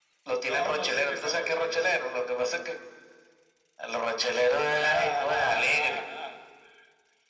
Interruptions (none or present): present